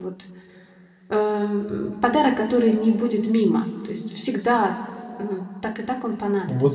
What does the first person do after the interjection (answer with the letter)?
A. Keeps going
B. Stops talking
B